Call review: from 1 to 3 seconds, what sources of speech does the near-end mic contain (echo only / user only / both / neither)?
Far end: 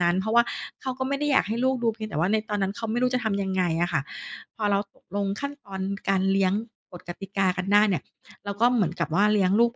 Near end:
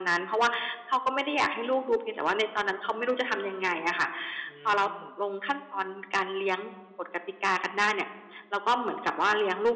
echo only